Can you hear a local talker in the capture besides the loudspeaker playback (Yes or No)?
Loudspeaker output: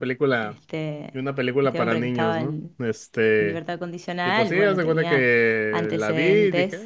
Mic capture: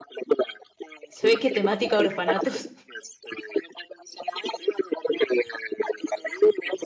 Yes